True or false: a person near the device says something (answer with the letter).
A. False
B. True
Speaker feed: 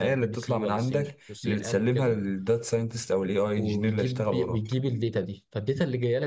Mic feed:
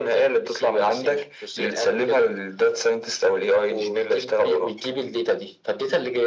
A